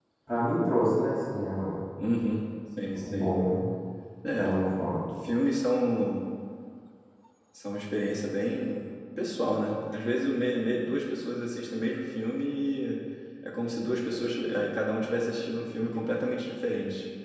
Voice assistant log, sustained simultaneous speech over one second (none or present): none